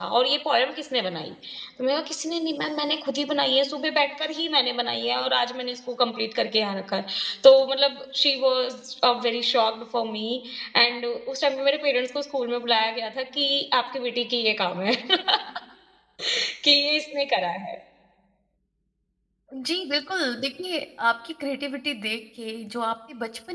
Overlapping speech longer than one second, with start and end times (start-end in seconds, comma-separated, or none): none